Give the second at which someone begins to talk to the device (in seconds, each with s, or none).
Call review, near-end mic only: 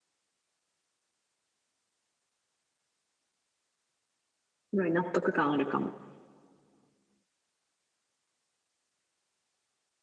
4.7 s